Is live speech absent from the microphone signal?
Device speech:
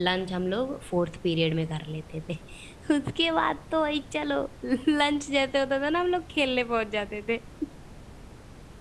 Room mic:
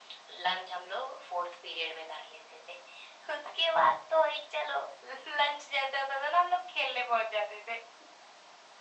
Yes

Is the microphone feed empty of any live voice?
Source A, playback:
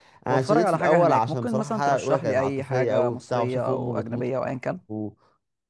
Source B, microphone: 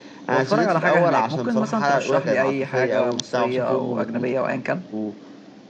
Yes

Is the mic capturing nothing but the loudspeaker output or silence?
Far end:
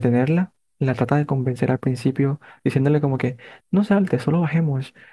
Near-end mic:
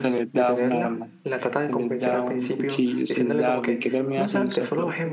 No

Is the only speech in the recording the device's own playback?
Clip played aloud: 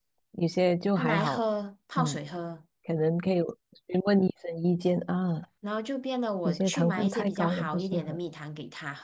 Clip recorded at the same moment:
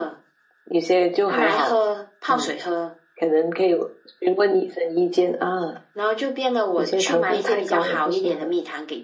Yes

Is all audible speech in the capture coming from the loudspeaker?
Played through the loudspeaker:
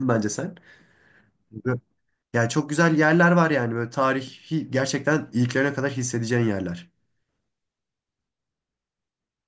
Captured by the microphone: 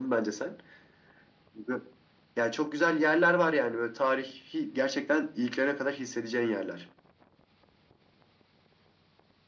Yes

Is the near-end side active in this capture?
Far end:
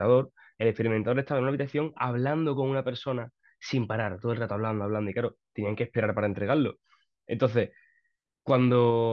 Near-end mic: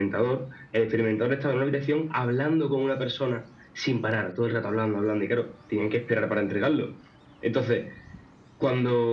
No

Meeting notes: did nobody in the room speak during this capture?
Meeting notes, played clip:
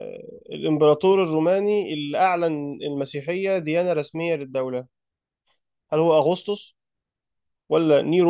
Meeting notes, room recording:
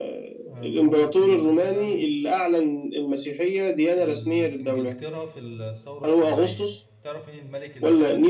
No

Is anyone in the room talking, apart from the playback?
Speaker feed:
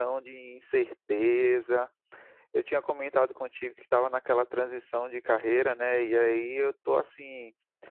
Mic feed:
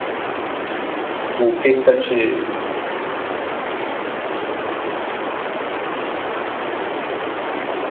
Yes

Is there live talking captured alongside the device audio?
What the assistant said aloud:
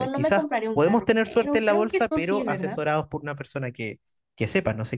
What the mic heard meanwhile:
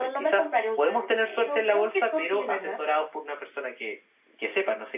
No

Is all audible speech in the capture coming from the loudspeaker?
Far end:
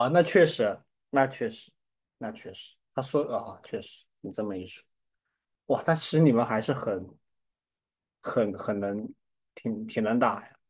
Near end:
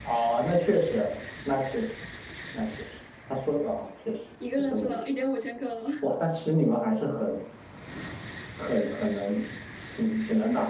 No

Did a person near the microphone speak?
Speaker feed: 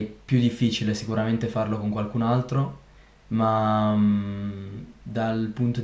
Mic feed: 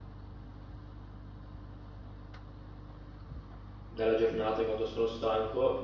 Yes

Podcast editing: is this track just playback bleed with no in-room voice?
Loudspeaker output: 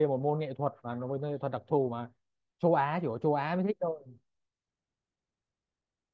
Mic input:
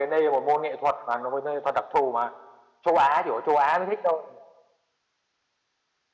Yes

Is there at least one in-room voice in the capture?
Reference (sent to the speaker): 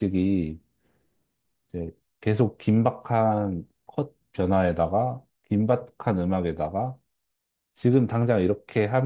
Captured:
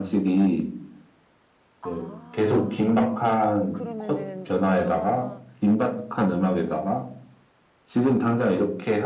Yes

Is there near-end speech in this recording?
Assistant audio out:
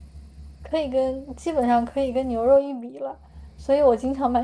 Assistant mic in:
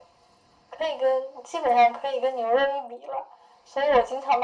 No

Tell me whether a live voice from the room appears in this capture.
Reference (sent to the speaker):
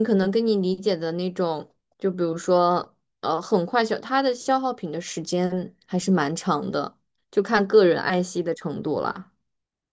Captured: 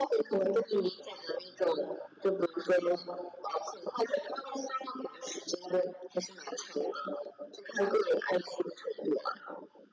No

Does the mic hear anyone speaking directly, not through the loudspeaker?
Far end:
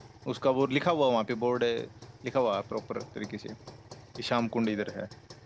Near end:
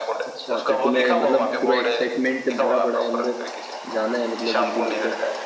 Yes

